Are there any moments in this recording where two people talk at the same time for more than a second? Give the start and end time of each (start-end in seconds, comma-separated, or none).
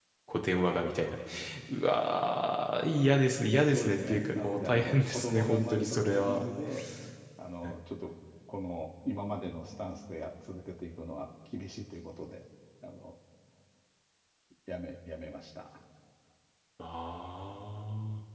3.6-6.4